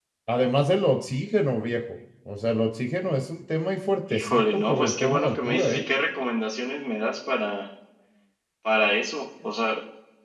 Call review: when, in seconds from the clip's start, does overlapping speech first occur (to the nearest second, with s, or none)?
4 s